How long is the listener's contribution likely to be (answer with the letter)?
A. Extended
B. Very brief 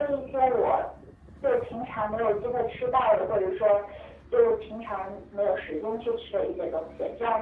A